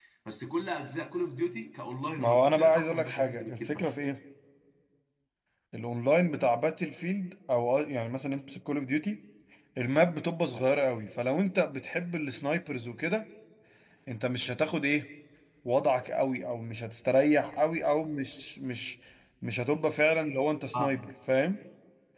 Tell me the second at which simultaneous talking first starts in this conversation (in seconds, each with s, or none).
2.2 s